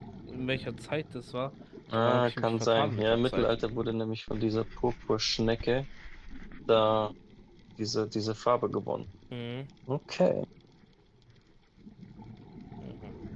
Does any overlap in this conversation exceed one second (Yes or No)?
Yes